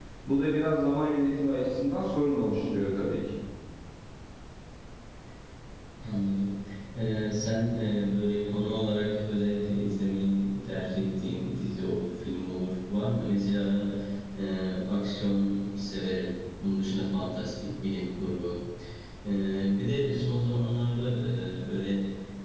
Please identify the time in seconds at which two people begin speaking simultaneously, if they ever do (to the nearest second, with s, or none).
none